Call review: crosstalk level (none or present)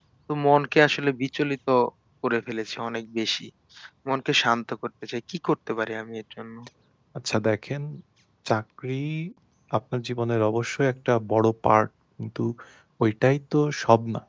none